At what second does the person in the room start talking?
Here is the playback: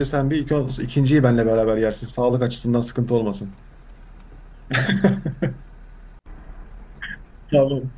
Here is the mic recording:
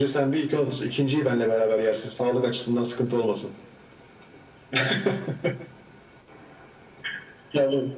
none

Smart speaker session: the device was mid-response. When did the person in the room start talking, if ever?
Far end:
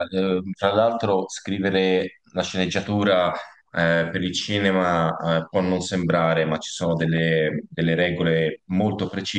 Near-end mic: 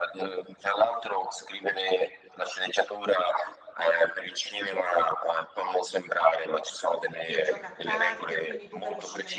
7.2 s

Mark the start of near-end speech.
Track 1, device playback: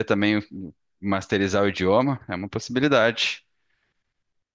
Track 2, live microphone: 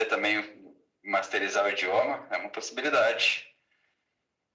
none

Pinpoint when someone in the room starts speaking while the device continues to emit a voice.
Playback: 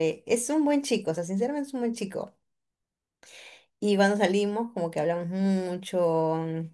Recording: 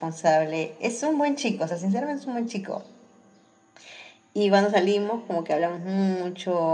none

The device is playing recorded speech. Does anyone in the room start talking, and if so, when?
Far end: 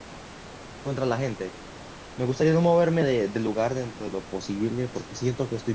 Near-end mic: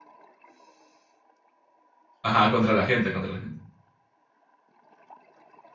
2.2 s

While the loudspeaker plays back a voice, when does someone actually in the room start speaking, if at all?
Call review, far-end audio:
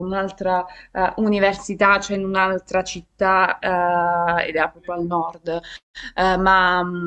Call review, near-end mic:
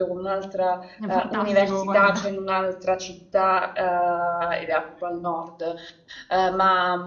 1.0 s

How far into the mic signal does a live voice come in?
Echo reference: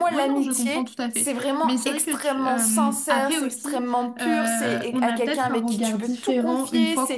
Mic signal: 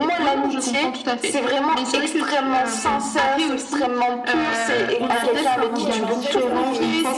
4.9 s

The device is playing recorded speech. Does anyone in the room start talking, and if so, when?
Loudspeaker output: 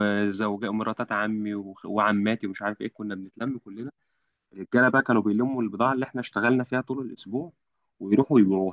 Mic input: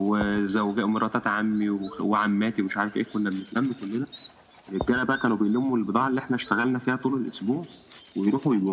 none

